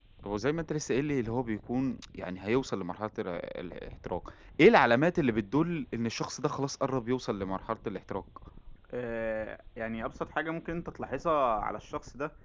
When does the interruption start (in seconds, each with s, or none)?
none